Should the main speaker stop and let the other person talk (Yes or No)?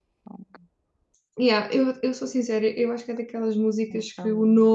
No